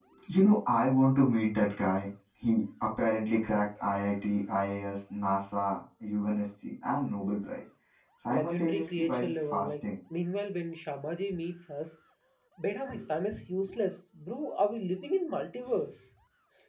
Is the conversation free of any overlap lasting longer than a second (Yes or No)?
No